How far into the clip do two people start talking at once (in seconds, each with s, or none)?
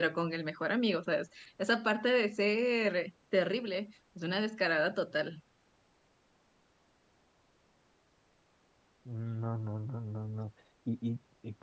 none